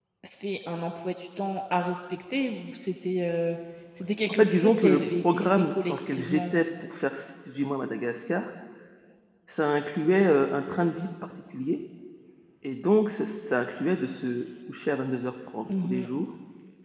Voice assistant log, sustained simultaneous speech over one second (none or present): present